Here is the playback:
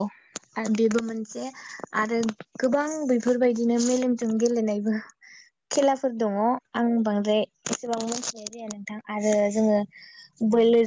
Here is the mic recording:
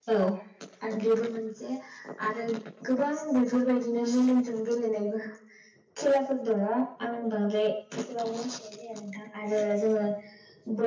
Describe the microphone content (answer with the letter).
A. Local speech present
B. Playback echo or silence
B